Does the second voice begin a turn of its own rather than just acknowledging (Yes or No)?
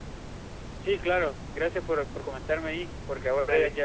No